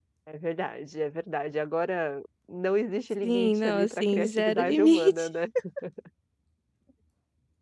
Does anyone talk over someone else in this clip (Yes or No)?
Yes